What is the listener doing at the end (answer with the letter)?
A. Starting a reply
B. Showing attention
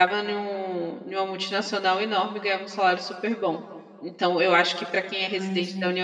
B